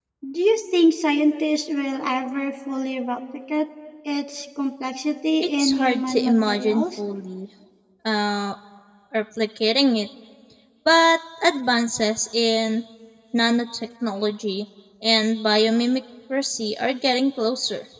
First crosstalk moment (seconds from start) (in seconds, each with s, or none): 5.6 s